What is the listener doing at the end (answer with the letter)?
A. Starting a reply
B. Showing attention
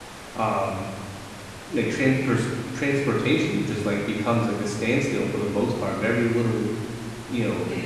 B